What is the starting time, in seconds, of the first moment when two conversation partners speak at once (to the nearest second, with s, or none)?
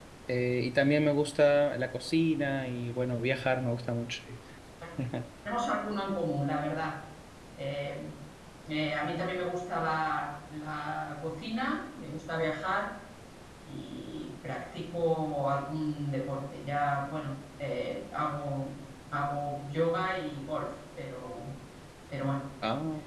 none